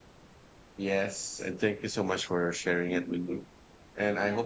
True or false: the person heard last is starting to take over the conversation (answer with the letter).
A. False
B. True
A